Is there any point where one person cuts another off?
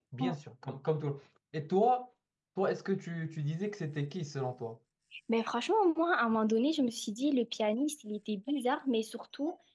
No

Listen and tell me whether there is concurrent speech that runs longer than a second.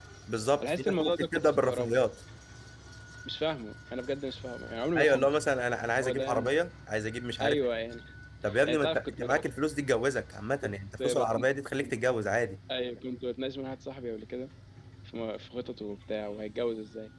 Yes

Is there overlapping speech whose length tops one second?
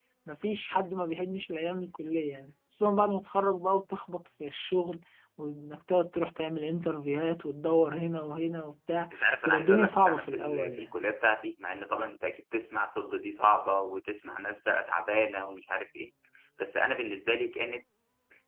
Yes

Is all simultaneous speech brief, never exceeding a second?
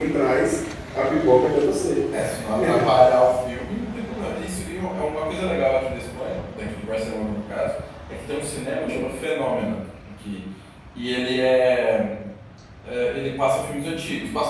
Yes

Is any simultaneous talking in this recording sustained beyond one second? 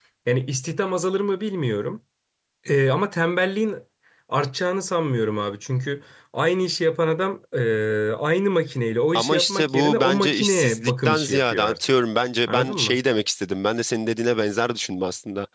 Yes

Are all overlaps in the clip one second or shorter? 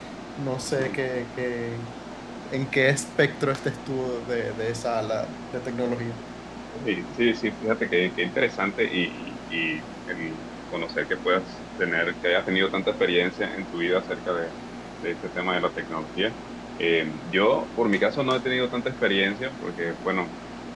Yes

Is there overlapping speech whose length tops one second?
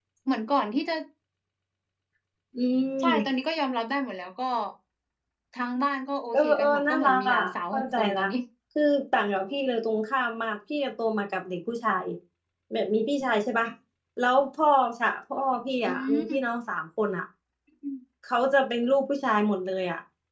Yes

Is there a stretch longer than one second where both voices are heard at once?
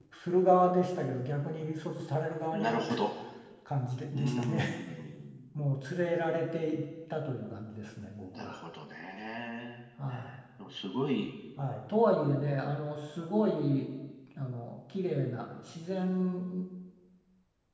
No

